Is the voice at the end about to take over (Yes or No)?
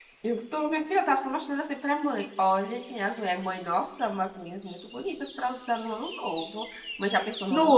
Yes